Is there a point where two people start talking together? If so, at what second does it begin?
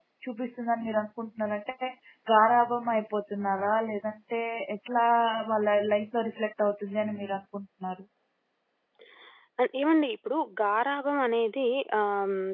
none

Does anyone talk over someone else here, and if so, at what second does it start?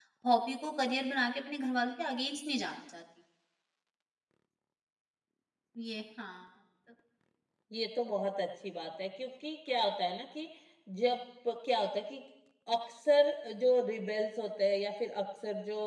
none

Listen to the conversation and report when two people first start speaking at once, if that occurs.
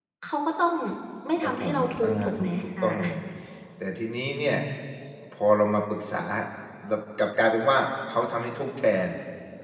1.4 s

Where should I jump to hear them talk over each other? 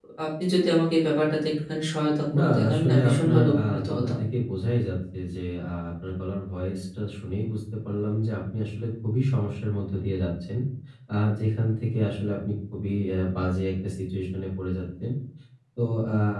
2.3 s

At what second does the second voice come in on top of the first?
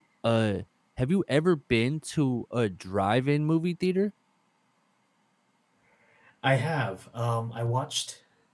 none

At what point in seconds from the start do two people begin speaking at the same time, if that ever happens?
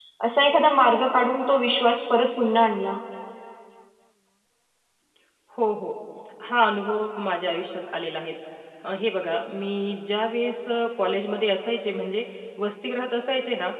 none

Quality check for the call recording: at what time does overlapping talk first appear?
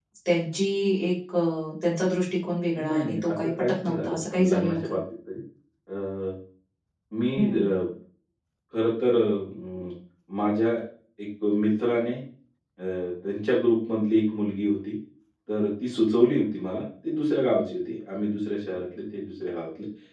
2.8 s

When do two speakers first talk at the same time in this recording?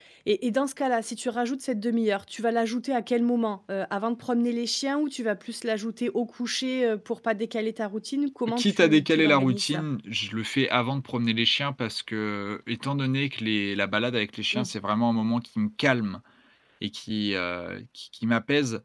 8.5 s

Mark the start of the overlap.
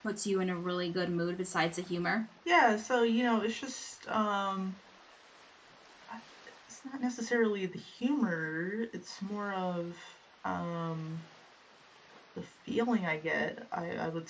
none

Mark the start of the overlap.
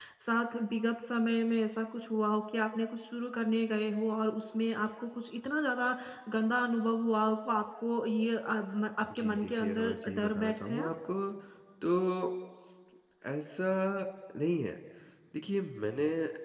9.1 s

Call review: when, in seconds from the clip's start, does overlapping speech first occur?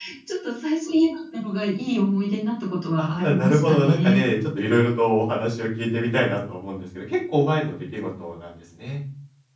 3.0 s

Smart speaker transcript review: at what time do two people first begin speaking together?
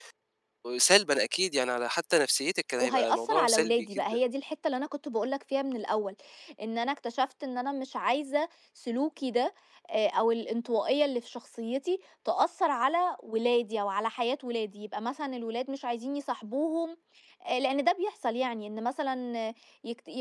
2.7 s

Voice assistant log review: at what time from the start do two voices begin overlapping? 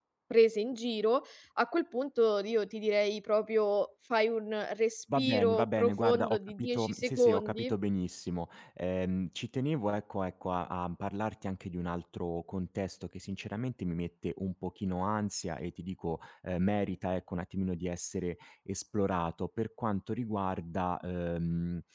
5.1 s

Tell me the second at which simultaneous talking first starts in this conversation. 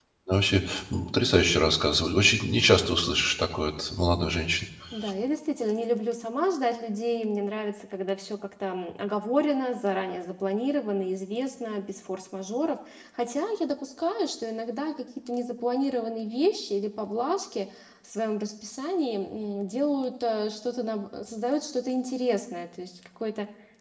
none

